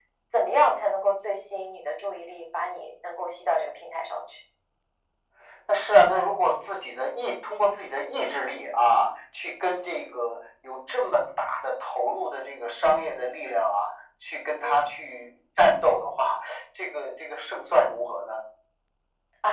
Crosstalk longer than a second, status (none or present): none